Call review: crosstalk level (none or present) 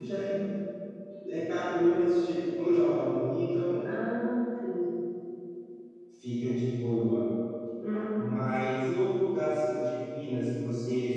none